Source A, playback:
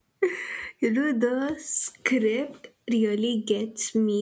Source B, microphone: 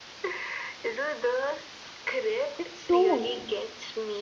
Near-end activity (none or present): present